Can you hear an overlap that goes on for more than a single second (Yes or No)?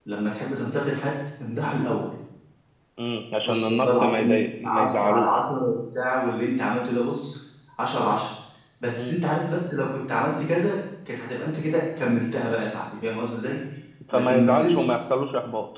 Yes